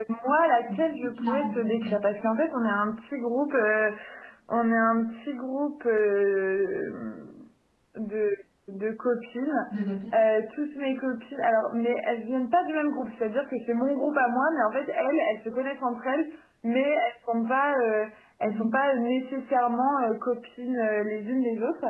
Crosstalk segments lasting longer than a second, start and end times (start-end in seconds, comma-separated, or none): 0.7-2.0